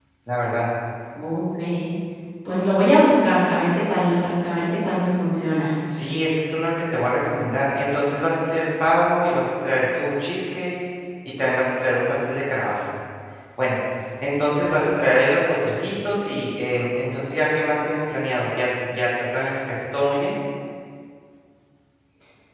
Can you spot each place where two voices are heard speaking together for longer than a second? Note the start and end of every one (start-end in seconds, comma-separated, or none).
none